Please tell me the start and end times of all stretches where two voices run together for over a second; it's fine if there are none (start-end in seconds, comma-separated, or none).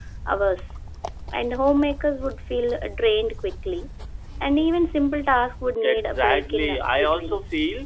5.8-7.4